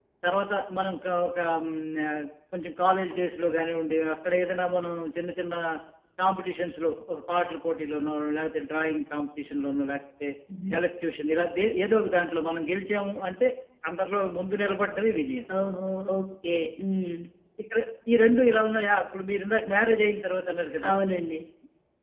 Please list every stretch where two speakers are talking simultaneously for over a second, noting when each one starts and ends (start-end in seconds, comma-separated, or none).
none